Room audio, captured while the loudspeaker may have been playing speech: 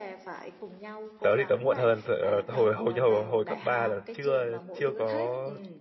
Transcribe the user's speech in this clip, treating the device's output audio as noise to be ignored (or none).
tớ thì tớ muộn hơn tớ, ờ, hồi hồi hồi hồi cấp 3 là chưa chưa có